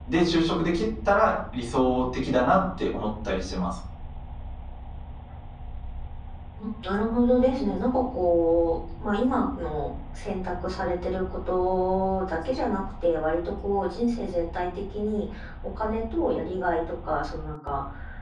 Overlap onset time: none

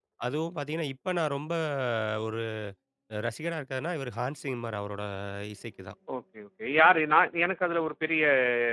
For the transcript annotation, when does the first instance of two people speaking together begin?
none

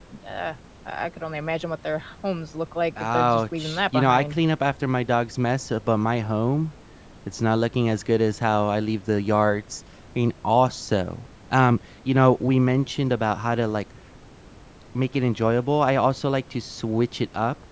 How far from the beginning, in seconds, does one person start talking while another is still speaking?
3.0 s

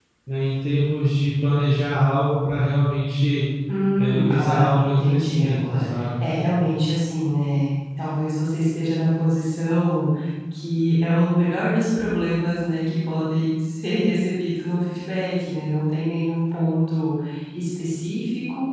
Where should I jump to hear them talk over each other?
4.0 s

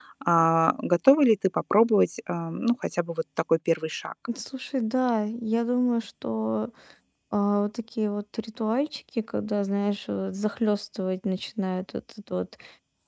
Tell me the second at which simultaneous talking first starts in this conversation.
none

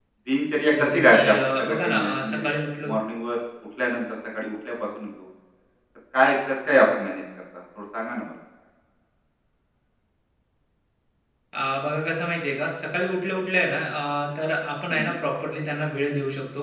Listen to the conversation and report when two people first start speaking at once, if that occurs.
0.8 s

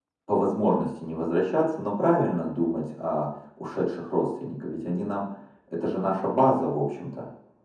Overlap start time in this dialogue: none

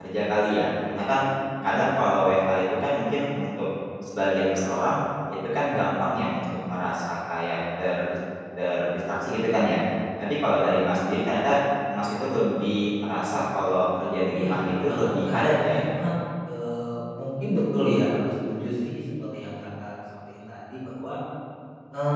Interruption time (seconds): 14.3 s

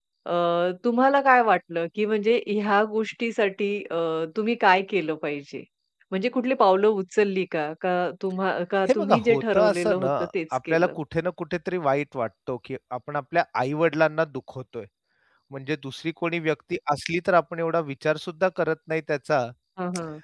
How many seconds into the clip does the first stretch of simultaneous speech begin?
8.9 s

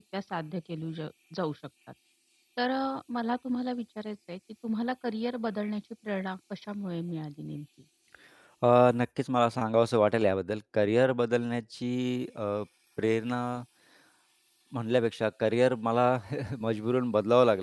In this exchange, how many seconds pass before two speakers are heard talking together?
none

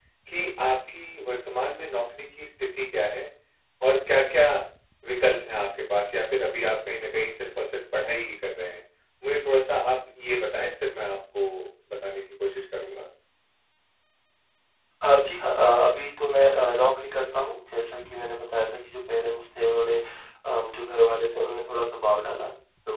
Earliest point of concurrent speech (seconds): none

